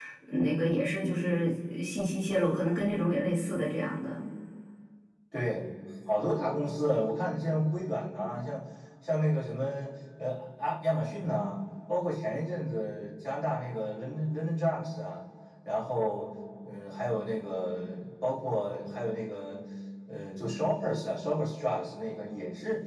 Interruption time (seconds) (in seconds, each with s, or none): none